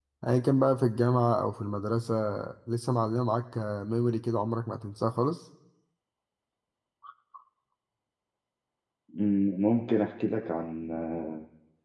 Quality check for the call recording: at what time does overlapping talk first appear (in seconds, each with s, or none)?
none